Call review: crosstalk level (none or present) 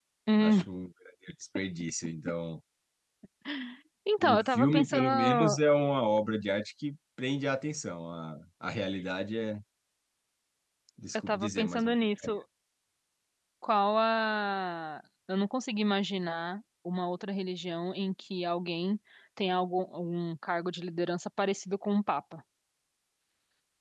present